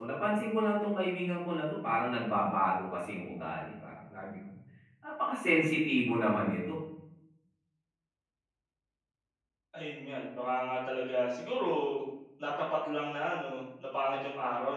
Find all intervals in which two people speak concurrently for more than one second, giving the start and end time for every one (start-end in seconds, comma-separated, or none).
none